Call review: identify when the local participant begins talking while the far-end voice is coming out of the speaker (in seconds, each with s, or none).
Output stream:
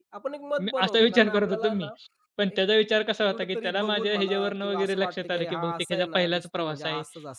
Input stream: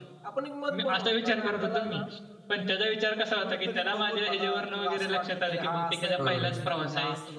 6.2 s